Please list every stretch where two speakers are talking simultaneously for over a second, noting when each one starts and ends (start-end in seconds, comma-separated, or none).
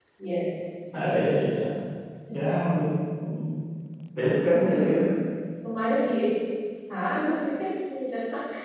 none